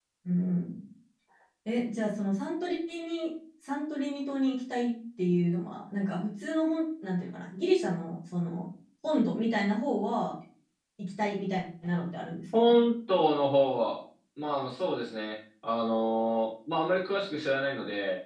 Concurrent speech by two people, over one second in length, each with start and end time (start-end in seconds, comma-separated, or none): none